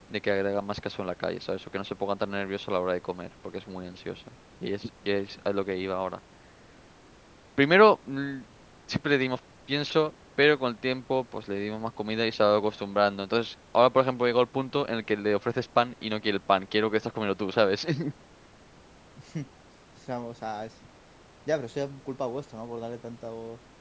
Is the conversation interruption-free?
Yes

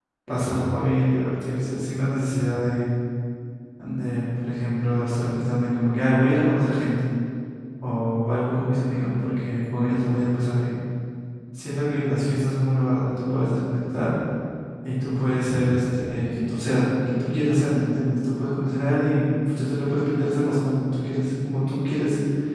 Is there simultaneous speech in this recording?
No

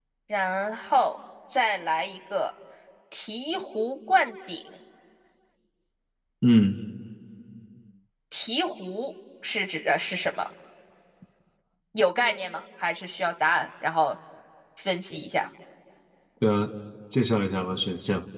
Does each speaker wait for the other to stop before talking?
Yes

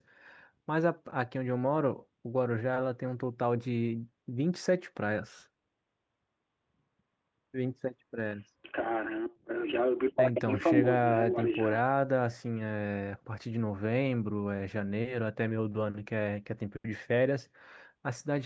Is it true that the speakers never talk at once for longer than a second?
No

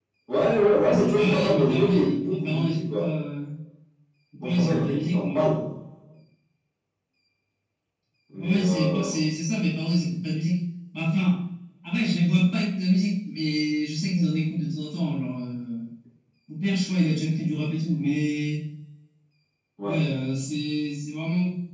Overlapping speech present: Yes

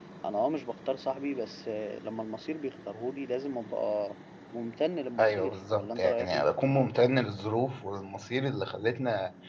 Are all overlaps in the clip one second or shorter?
No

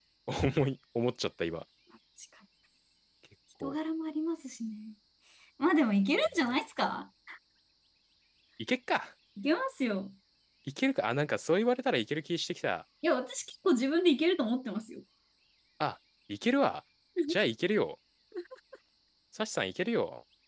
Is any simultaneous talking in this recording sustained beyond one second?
No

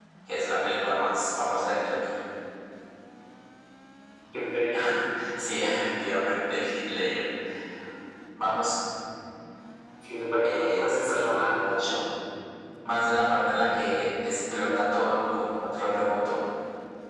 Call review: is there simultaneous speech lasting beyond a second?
Yes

